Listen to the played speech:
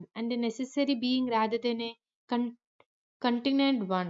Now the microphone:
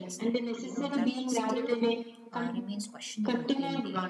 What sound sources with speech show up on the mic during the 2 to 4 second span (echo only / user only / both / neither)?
both